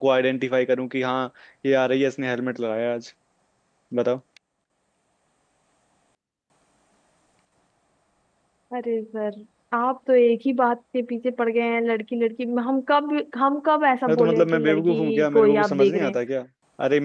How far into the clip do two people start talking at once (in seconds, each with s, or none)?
14.1 s